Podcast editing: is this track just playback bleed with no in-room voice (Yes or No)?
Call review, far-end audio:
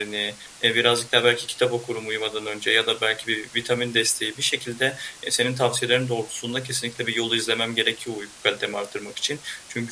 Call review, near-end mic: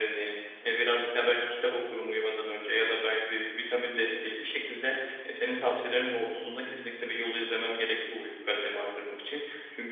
Yes